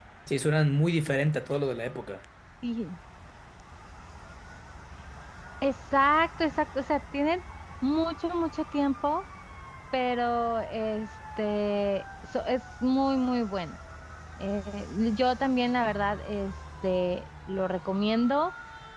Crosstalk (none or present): none